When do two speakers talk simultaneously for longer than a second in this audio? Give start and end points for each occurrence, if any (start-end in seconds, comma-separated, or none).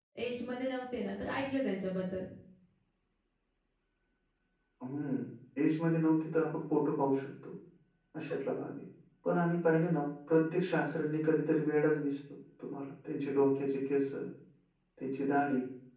none